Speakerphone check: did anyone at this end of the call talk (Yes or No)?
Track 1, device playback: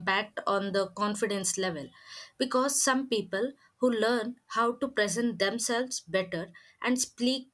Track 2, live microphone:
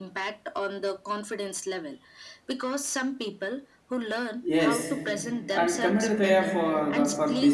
Yes